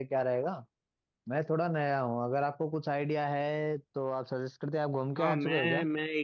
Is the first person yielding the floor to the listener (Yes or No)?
Yes